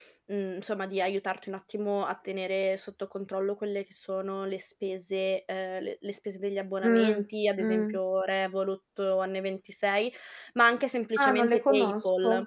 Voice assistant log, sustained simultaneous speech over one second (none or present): present